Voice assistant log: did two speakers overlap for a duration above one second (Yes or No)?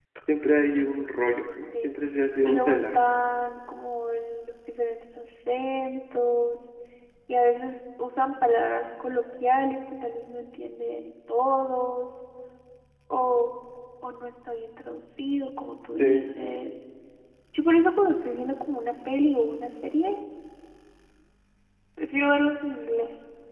Yes